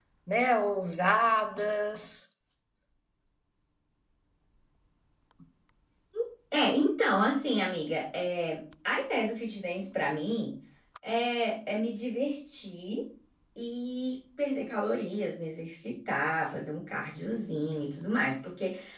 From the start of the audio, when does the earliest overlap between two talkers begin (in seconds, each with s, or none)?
none